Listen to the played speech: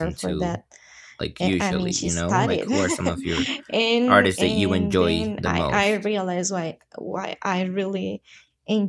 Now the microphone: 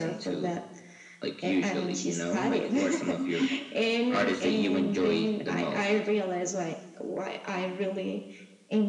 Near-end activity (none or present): none